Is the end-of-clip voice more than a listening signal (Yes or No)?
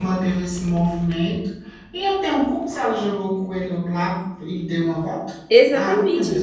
Yes